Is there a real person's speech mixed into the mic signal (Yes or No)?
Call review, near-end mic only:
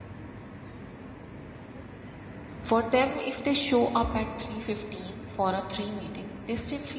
Yes